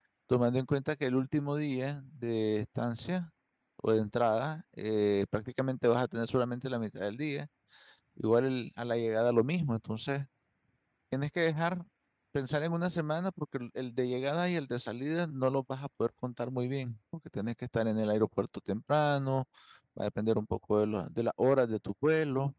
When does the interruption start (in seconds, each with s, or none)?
none